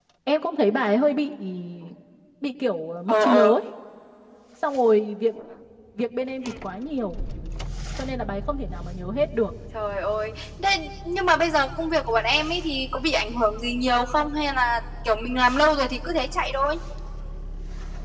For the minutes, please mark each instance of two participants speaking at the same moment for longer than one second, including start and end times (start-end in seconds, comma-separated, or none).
none